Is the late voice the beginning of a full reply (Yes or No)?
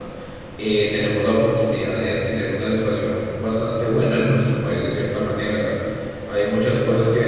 No